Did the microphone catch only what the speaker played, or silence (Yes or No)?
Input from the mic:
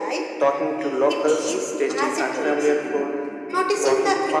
No